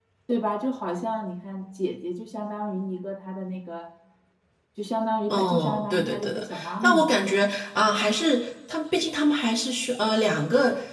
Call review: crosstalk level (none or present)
present